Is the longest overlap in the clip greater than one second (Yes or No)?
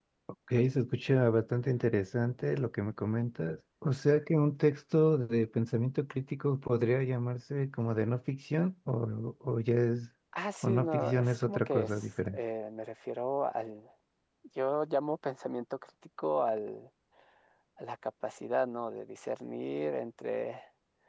Yes